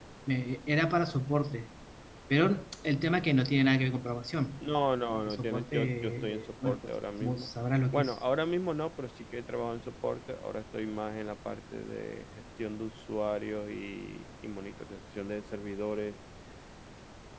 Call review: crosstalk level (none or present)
present